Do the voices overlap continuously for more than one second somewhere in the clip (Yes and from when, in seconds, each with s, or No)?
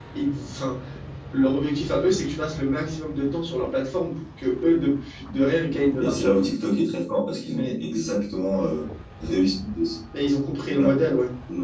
No